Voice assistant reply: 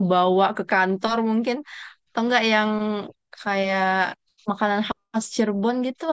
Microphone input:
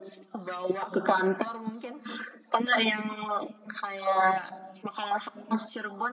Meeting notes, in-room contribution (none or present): none